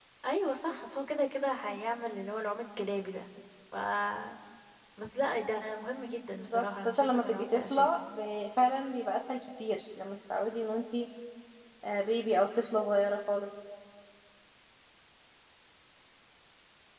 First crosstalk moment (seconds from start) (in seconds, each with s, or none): 6.5 s